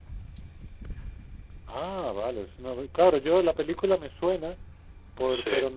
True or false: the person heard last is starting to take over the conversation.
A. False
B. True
A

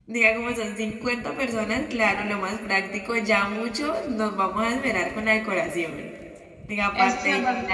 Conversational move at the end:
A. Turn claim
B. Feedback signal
A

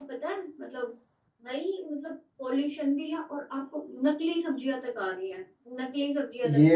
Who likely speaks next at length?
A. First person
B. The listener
B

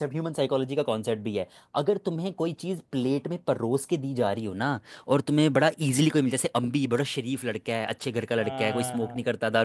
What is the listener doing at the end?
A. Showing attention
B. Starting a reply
A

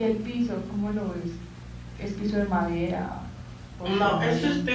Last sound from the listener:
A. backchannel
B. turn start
B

